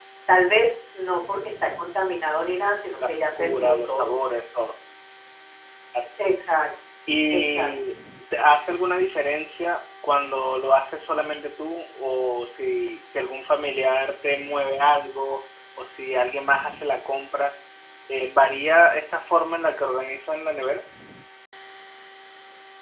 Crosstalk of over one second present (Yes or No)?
Yes